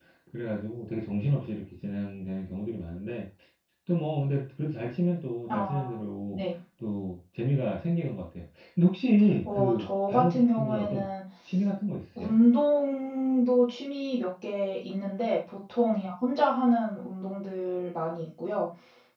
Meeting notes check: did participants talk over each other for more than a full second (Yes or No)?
Yes